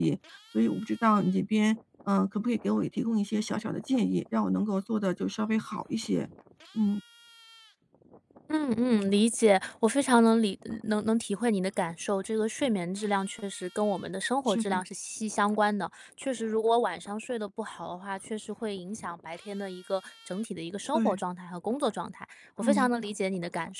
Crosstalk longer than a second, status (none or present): none